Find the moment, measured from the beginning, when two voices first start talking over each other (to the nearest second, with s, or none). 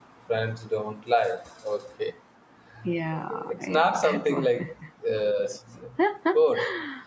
3 s